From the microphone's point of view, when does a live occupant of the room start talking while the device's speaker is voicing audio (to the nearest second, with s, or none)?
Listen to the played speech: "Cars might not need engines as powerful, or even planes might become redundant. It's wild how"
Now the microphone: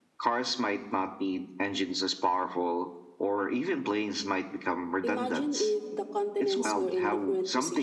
5 s